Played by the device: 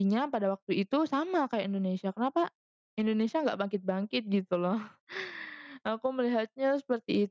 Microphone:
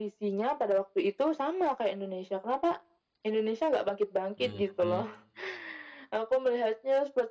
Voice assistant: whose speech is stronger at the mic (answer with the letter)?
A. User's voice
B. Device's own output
B